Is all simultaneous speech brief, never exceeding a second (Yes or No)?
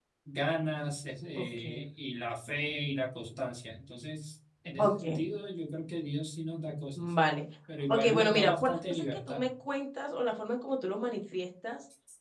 No